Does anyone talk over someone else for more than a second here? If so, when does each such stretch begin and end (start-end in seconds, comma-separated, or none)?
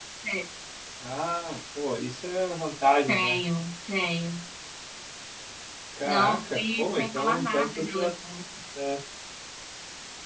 6.0-8.1